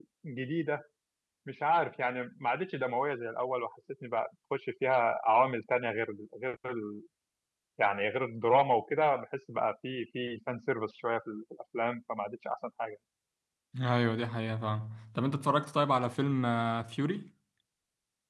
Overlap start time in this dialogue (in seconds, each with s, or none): none